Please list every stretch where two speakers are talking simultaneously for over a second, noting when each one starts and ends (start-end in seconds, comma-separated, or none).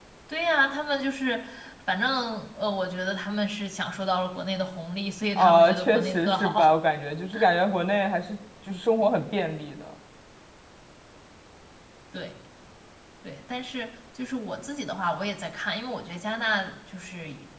5.4-6.7